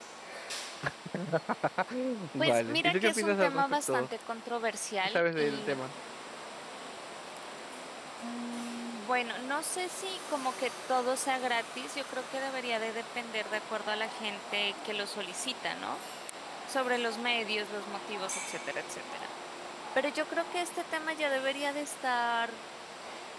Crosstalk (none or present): present